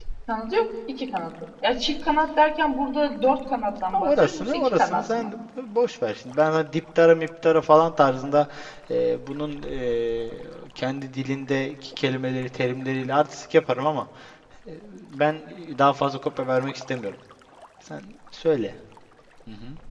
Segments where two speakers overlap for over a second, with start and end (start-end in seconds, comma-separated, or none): 3.9-5.3